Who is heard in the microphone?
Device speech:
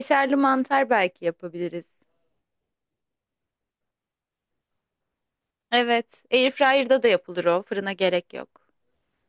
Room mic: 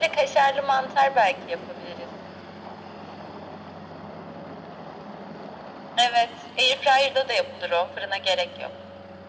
echo only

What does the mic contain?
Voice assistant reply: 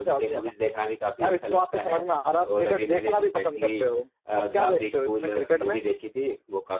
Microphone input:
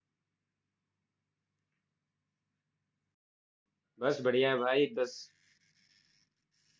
user only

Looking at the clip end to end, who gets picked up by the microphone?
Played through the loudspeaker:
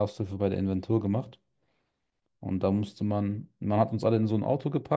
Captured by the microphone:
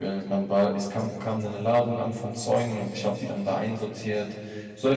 user only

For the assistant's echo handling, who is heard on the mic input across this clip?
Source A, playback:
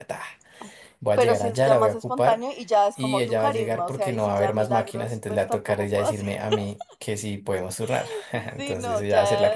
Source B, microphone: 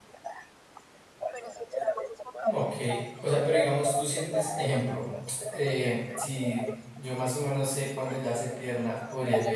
both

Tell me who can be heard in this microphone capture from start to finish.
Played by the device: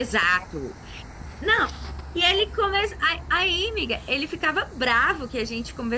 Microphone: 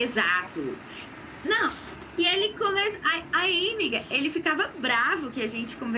echo only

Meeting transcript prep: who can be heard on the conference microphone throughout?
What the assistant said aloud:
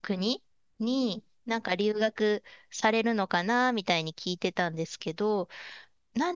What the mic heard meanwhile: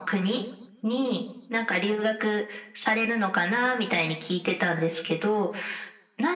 echo only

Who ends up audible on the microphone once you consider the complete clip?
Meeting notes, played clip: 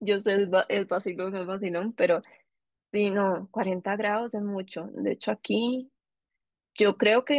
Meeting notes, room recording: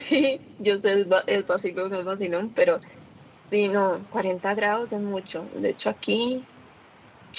echo only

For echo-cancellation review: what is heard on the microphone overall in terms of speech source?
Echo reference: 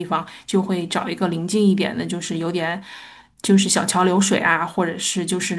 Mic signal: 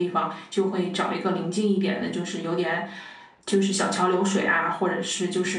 echo only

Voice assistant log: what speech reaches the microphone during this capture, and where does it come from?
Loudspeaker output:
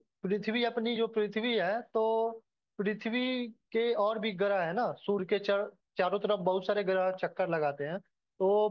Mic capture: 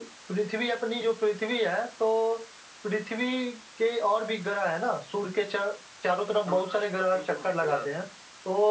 both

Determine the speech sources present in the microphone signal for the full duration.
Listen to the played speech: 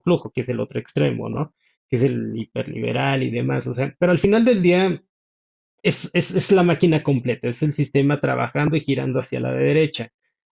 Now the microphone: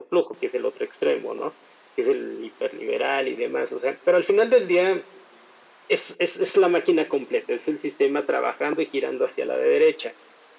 echo only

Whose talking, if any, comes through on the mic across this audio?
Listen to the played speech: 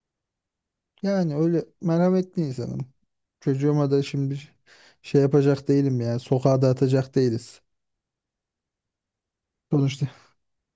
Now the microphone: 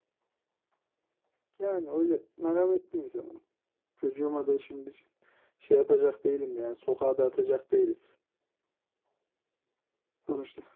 echo only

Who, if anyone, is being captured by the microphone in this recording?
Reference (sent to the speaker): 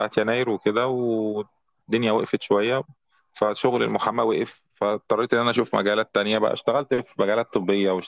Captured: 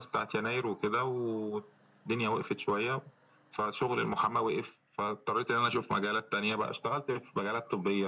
echo only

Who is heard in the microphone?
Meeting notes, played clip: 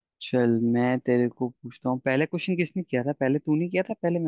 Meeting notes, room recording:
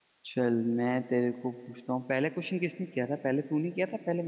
echo only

